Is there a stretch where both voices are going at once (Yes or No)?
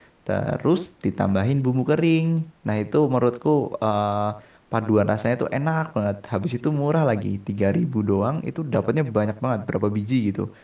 No